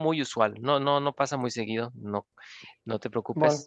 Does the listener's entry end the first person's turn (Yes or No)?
Yes